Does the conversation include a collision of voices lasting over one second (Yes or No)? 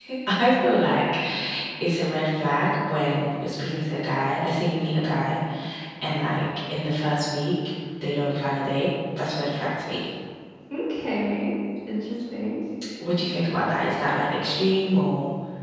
No